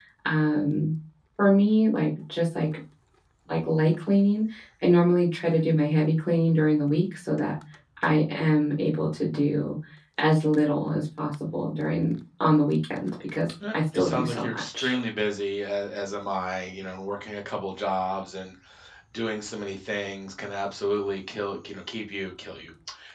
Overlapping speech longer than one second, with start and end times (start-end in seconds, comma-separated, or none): 13.7-15.0